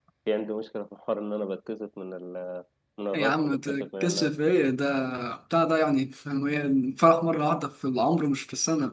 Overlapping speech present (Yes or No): Yes